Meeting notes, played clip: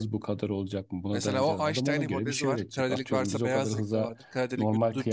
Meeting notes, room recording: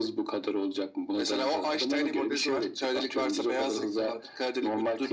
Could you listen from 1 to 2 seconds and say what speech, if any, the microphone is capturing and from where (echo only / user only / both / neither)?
echo only